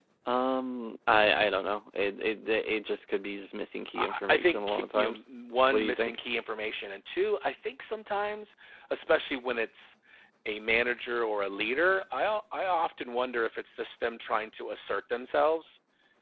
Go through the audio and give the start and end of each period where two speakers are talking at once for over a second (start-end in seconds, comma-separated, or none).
4.0-5.2